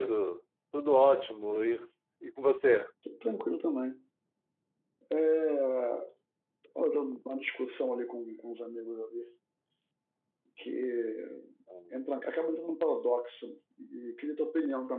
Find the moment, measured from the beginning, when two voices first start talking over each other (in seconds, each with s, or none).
none